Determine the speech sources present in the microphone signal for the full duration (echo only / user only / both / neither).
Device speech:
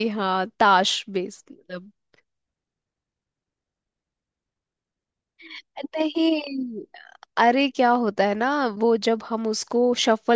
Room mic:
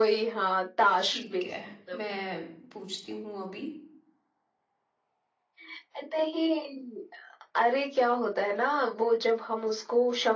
both